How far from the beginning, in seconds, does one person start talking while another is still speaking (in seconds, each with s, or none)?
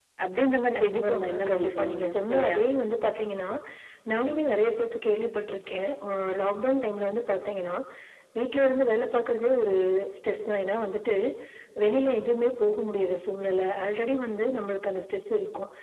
0.8 s